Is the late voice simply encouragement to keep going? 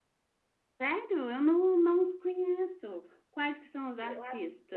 No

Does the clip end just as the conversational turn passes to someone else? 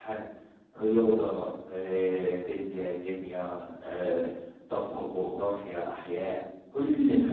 Yes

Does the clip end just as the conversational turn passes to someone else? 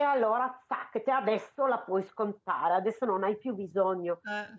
No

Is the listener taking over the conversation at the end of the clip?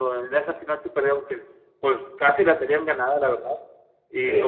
No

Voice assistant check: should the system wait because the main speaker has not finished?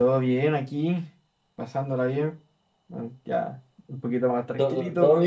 No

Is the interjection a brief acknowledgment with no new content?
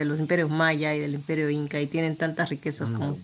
Yes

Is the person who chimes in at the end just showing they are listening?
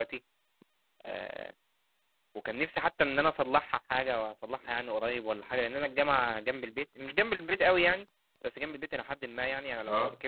Yes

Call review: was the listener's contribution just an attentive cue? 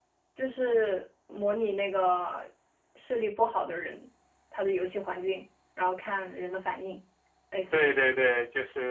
No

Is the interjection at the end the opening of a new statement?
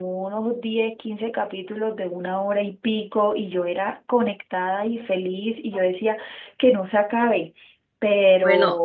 Yes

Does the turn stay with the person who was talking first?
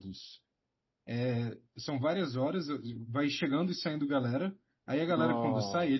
Yes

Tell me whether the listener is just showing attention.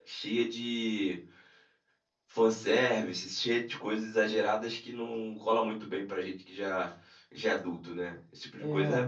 No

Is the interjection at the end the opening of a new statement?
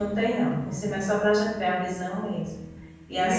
No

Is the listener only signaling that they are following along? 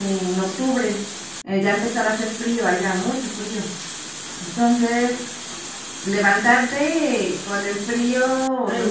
No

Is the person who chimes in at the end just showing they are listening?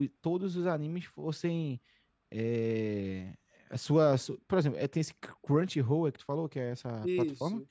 No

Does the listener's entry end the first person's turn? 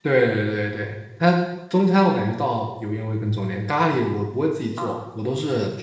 No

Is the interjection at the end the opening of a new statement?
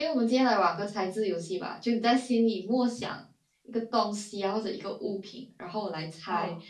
No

